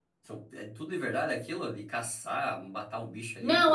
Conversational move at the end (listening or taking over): taking over